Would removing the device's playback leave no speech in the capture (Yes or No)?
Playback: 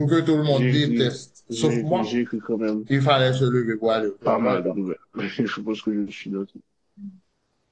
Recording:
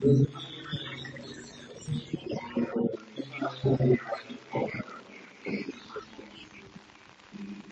Yes